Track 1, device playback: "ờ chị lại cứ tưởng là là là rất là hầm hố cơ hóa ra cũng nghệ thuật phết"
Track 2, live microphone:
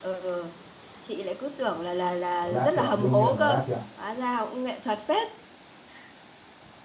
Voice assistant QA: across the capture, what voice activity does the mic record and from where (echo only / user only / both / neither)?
both